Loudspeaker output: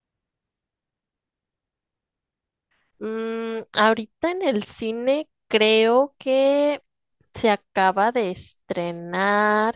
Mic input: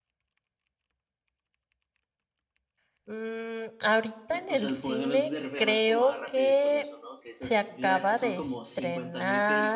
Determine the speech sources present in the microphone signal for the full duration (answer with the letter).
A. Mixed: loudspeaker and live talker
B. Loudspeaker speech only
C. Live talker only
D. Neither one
A